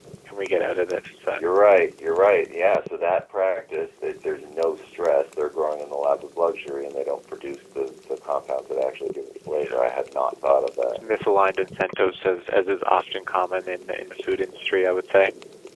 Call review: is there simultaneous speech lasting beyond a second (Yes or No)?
No